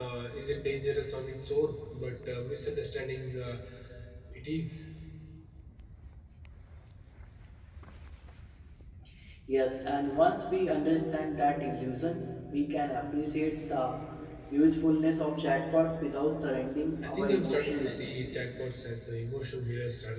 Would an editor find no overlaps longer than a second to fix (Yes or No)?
No